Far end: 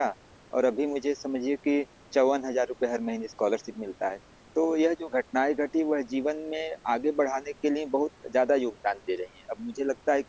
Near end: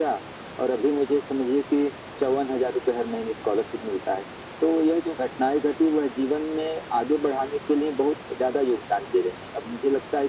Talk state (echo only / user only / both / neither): echo only